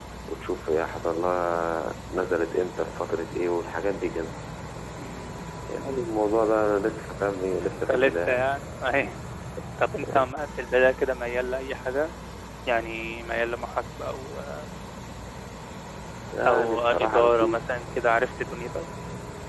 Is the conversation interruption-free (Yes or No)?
No